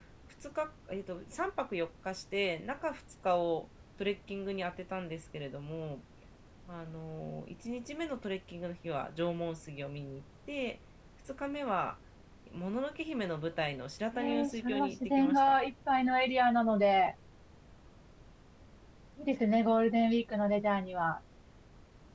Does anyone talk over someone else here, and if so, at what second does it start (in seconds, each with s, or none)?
14.1 s